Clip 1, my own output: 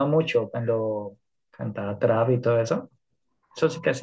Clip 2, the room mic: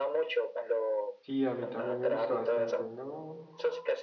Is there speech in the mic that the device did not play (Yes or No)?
Yes